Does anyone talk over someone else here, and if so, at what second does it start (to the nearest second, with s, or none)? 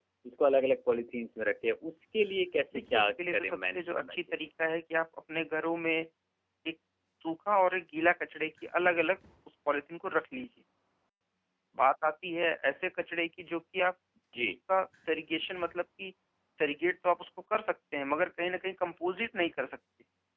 3 s